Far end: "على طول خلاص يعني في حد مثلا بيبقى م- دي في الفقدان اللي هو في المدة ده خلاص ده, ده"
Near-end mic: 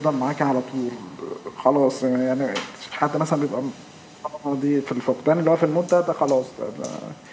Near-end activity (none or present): none